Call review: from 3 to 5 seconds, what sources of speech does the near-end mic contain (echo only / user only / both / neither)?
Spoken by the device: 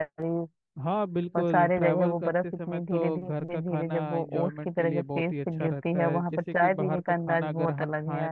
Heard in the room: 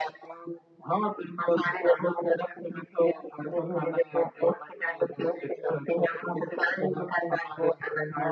echo only